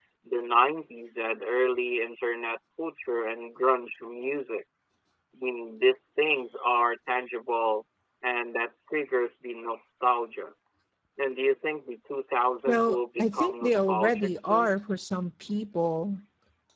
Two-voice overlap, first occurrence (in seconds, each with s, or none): 12.7 s